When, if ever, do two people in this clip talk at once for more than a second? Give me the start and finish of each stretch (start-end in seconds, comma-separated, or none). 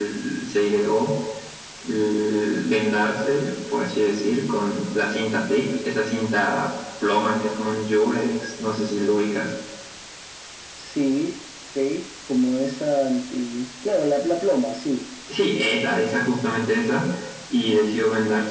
none